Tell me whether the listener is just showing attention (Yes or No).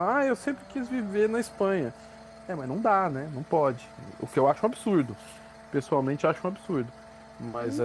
No